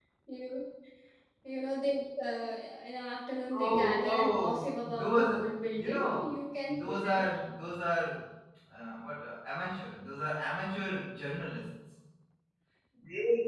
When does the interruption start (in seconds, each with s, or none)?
3.5 s